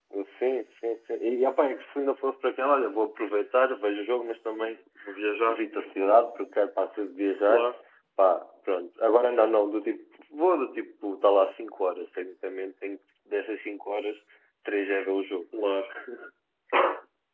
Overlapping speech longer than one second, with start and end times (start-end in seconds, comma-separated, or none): none